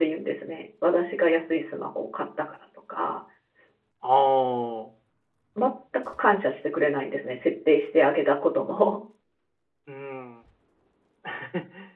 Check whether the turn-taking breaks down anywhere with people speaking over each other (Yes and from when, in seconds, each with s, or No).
No